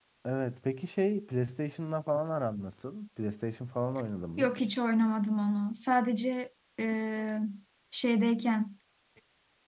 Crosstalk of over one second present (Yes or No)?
No